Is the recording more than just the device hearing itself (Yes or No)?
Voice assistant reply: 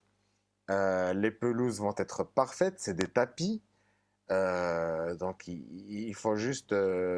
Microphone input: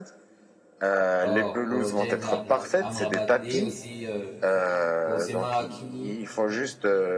Yes